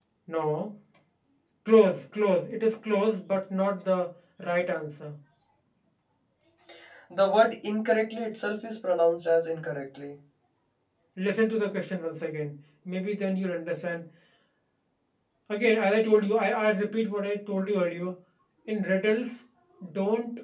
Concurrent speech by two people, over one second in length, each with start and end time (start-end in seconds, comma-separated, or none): none